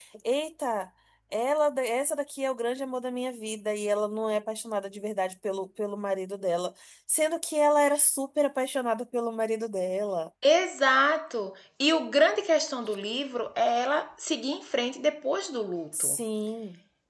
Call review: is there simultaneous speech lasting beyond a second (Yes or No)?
No